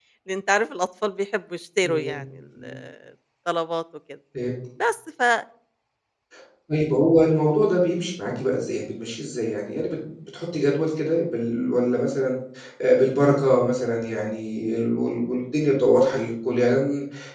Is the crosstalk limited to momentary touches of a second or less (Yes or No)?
Yes